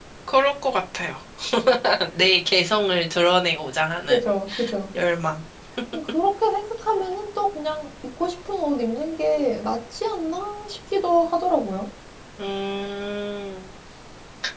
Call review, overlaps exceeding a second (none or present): none